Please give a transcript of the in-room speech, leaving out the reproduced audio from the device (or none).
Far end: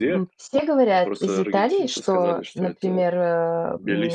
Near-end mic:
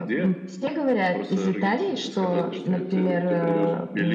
То есть, соответственно, если ты придё ты придёшь